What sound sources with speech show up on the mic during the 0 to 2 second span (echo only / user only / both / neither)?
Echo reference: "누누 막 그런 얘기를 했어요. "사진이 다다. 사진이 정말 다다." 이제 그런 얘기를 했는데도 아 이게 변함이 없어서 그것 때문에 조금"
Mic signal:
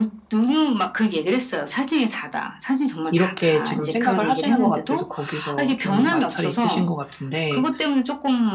echo only